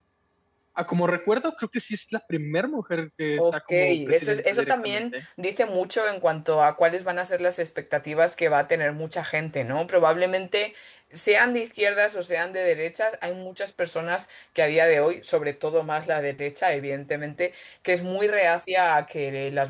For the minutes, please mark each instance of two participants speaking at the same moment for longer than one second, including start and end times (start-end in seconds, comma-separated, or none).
3.4-5.1